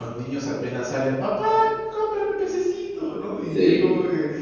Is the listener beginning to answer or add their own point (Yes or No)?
No